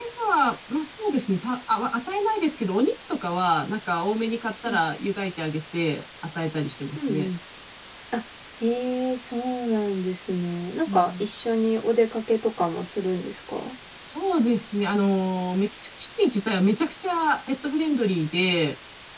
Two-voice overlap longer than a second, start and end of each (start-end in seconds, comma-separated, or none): none